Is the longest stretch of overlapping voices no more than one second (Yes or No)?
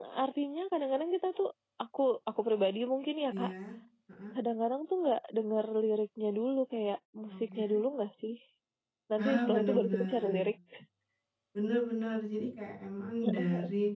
No